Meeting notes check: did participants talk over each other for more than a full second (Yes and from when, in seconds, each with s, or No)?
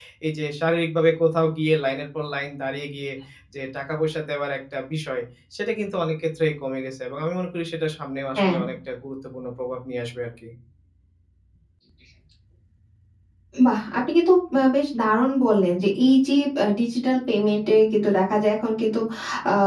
No